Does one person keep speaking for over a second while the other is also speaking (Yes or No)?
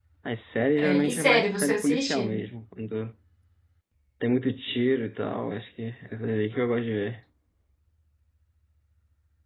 Yes